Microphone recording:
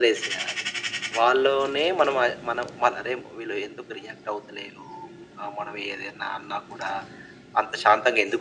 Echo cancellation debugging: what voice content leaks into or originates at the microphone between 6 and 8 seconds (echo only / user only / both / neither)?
echo only